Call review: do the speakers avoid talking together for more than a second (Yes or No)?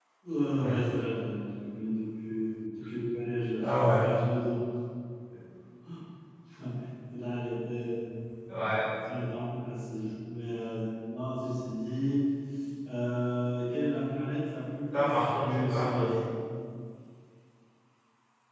No